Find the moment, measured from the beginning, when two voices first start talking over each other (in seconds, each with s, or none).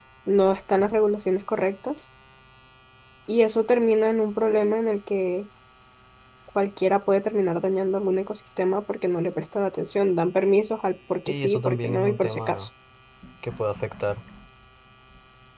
11.3 s